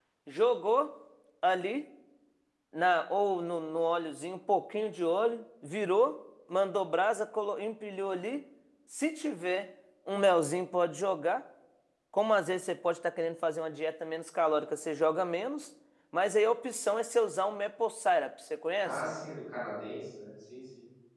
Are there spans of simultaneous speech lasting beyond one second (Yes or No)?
No